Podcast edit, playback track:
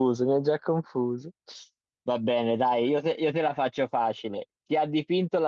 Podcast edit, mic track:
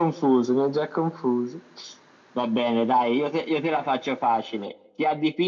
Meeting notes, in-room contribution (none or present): none